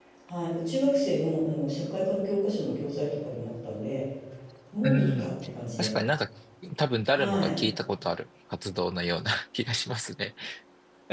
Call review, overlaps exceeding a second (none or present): none